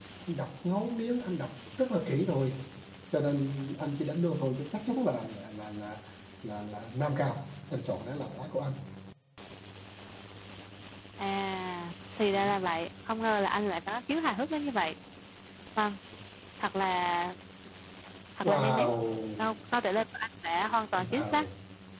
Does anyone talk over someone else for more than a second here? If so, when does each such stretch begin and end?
none

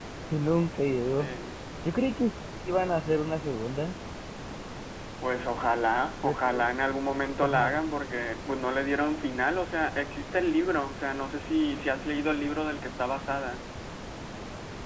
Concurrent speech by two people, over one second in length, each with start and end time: none

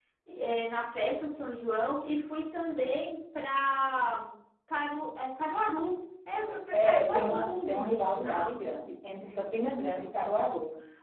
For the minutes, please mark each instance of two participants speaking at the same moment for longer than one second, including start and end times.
6.7-8.5

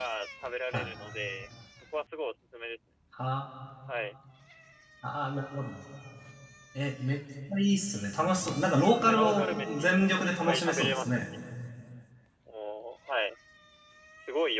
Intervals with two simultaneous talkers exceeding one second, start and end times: 8.9-11.3

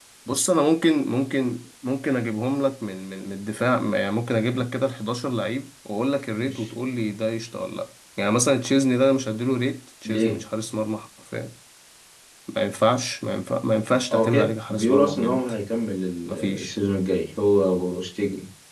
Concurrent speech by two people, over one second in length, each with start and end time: 14.1-15.4

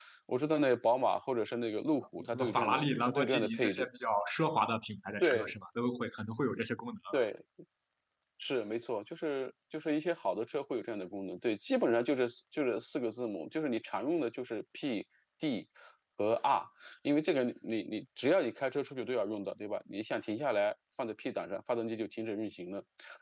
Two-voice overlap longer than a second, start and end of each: 2.3-3.9

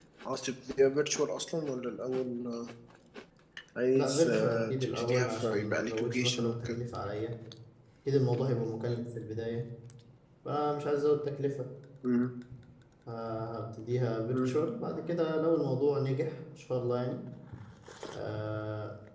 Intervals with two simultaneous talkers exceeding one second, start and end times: 4.0-6.8

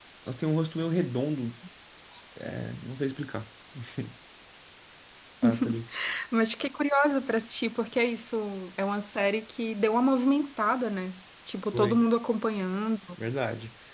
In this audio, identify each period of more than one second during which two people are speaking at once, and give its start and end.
none

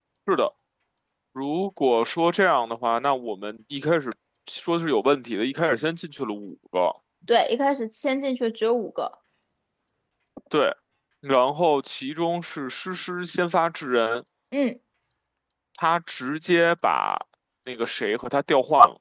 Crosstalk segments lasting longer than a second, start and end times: none

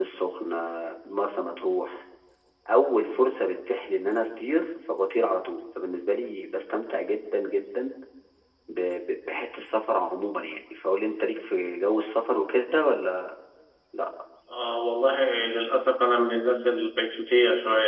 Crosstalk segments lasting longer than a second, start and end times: none

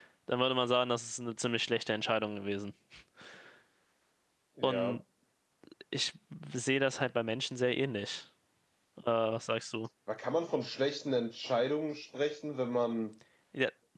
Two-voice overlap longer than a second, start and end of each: none

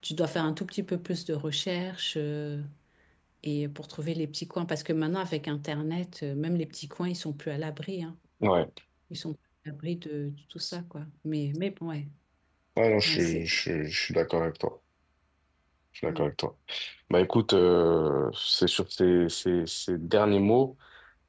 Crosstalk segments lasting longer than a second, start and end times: none

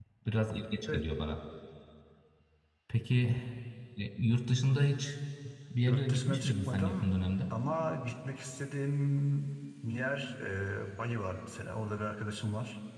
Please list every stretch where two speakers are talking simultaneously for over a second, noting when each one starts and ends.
5.8-7.1

